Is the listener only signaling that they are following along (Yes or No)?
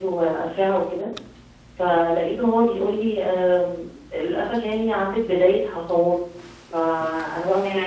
Yes